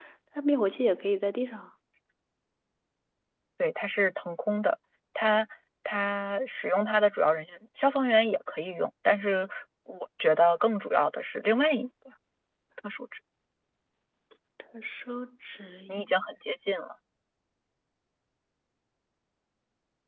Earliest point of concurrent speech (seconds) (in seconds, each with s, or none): none